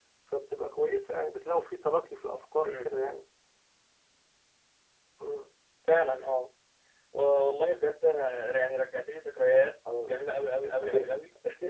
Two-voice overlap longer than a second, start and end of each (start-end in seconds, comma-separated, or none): none